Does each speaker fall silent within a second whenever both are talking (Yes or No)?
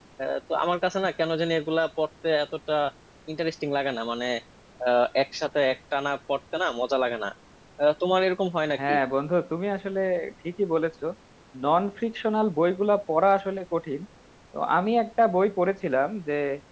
Yes